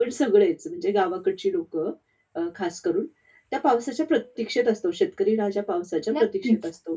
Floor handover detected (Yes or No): No